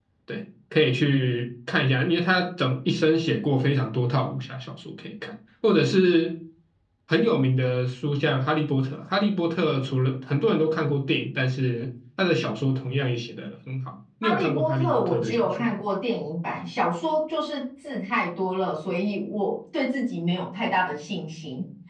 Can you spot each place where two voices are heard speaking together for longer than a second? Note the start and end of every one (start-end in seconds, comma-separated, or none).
14.2-15.8